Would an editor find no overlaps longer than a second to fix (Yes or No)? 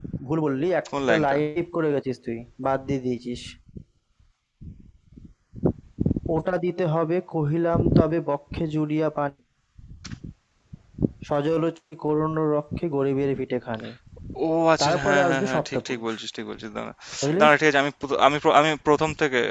No